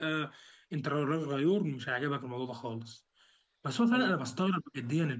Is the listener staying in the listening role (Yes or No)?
Yes